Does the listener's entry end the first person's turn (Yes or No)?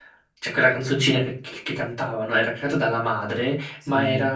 No